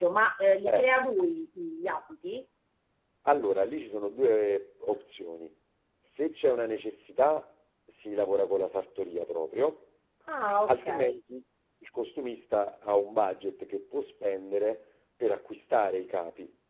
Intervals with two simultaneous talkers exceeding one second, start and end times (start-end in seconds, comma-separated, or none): none